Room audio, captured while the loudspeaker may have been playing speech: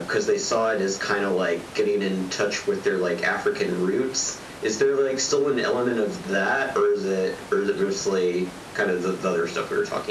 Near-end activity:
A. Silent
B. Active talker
A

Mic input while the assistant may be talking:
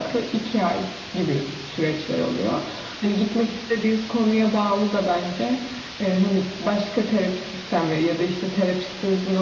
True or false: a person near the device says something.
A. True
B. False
B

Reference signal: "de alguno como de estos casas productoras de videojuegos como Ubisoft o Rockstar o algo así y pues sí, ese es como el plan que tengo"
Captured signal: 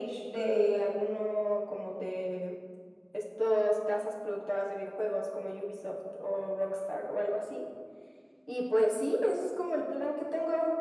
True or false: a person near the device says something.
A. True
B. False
B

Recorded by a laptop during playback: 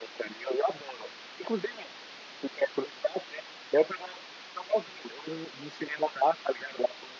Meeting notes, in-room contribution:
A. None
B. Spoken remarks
A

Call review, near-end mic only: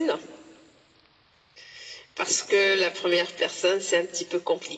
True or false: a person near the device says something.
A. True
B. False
B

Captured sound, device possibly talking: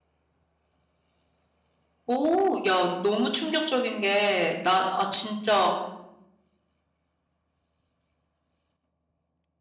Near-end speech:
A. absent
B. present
B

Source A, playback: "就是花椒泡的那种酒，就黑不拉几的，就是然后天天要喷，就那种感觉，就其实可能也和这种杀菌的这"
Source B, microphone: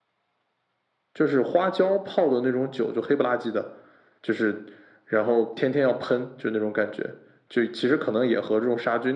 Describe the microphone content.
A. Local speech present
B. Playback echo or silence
B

